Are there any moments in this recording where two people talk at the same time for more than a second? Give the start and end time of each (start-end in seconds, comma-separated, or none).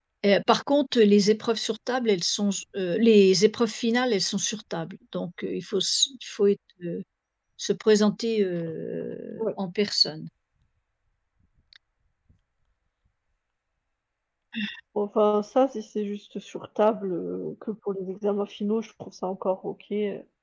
none